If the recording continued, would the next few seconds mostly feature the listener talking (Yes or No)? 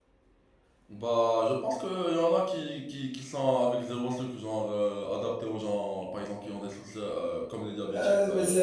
Yes